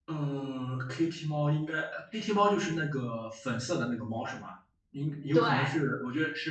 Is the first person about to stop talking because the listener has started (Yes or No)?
No